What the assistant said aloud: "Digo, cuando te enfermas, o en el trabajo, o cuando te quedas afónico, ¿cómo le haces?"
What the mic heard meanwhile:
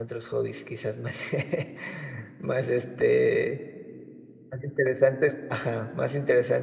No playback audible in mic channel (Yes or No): Yes